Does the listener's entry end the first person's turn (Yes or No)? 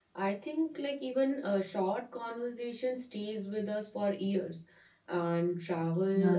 No